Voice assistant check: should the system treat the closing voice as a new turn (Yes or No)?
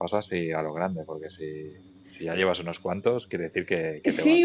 Yes